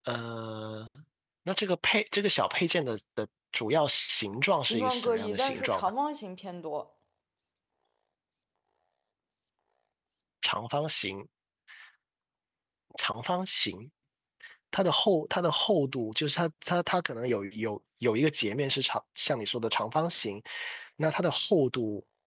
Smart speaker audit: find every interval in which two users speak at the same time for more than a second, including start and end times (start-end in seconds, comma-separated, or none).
4.6-5.9